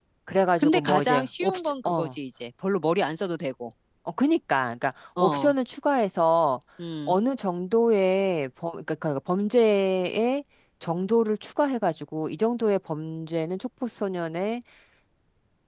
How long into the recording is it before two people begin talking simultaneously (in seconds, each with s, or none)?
0.6 s